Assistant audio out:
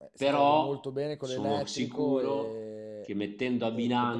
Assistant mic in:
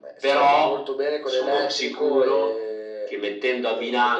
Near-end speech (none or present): none